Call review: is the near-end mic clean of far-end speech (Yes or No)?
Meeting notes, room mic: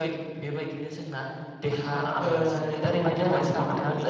No